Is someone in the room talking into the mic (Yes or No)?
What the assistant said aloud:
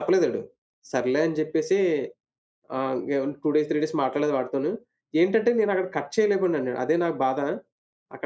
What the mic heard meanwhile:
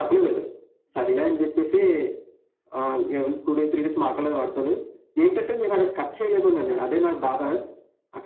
Yes